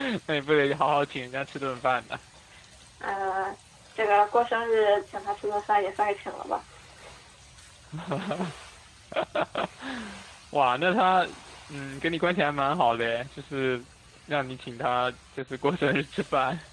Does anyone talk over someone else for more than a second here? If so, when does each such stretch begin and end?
none

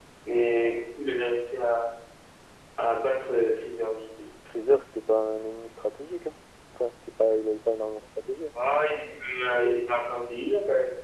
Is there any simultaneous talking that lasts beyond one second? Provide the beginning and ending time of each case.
none

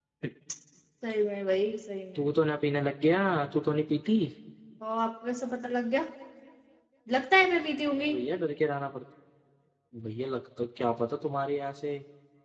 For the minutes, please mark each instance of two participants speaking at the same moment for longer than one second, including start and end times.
none

